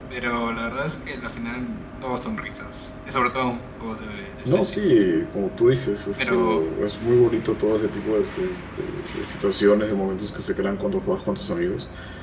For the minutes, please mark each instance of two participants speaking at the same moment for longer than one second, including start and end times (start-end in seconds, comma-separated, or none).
none